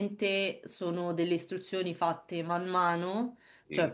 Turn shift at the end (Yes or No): No